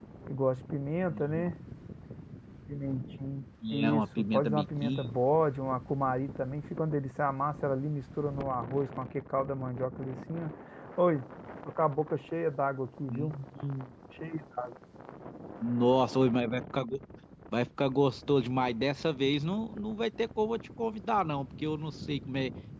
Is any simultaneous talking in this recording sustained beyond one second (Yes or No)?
Yes